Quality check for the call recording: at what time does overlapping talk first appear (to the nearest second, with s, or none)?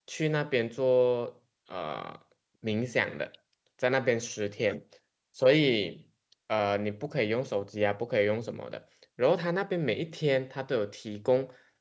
none